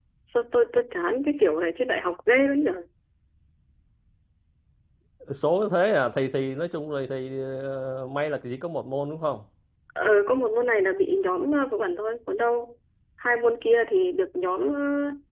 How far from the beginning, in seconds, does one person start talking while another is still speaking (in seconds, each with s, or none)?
none